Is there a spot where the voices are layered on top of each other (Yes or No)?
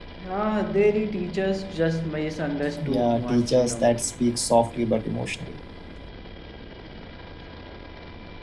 Yes